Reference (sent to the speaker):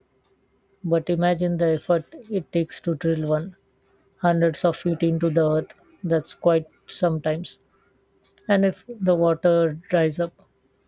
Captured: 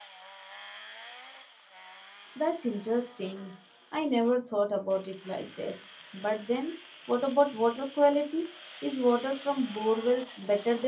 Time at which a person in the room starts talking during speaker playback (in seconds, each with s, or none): 2.4 s